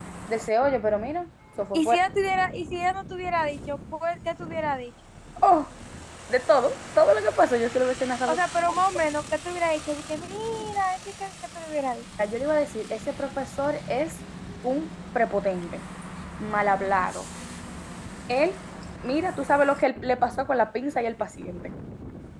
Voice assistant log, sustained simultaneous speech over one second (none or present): none